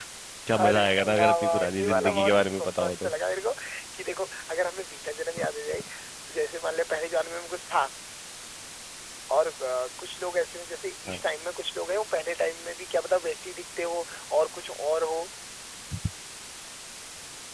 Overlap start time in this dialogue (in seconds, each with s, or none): 0.6 s